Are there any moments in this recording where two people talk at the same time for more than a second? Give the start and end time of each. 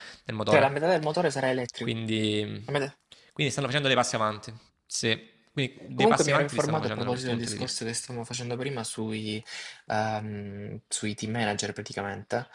6.0-7.8

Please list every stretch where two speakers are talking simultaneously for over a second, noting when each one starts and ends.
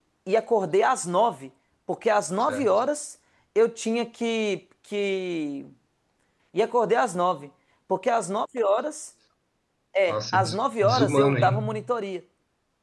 10.1-11.7

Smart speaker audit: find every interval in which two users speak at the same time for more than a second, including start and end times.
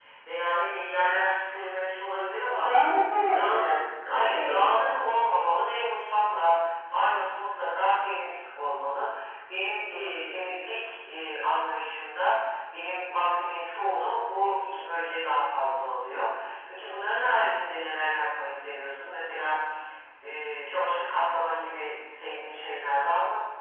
3.3-4.6

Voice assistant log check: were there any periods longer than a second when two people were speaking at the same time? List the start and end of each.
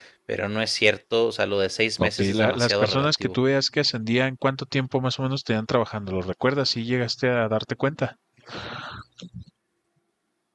2.0-3.4

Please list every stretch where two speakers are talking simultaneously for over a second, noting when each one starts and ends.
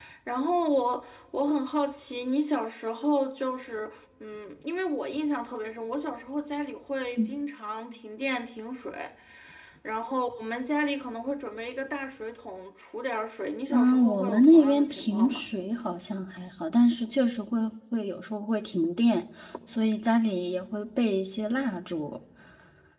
13.7-15.4

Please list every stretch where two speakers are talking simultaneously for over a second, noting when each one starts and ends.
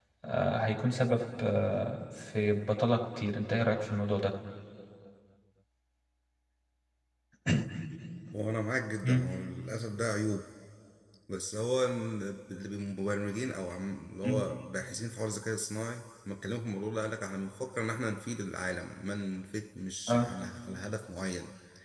none

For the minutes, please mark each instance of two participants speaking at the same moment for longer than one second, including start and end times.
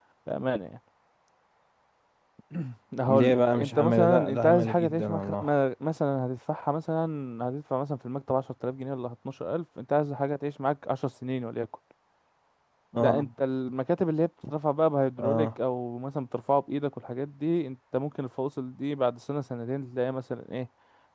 3.1-5.5

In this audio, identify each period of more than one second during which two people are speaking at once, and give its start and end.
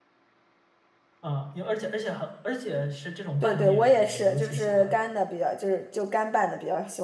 3.4-5.0

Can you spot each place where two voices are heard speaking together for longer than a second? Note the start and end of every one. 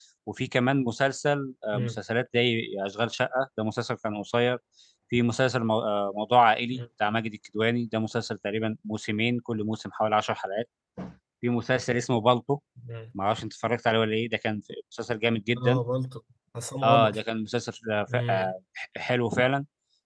none

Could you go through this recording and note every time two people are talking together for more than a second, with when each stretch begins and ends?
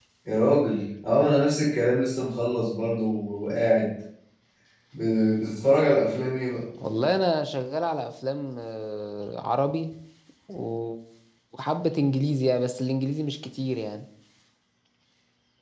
none

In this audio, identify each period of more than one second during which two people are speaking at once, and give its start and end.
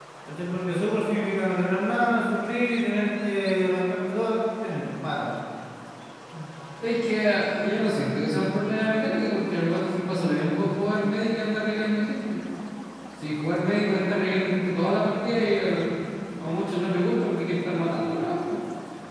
none

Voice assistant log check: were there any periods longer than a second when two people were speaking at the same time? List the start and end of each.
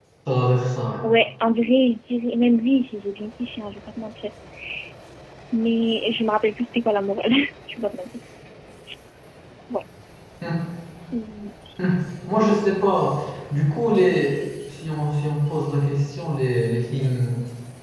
none

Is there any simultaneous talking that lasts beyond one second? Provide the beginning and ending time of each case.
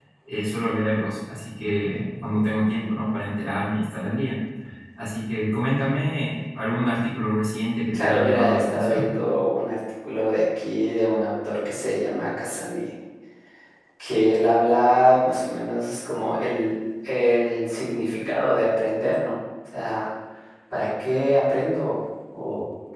7.9-9.1

